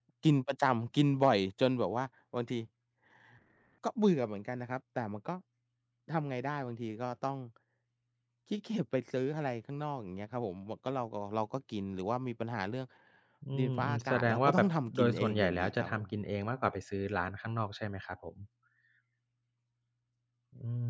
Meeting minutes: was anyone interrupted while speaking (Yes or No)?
Yes